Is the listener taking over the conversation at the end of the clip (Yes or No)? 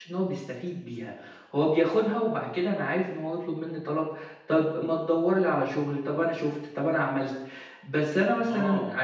Yes